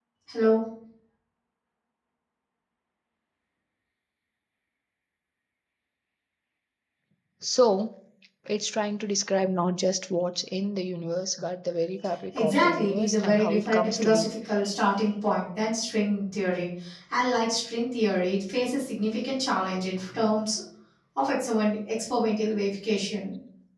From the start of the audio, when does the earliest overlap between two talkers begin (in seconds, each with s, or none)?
12.3 s